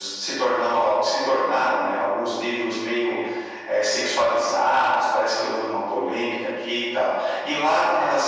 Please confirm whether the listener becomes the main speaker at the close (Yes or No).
No